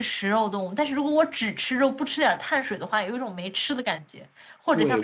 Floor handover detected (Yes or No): Yes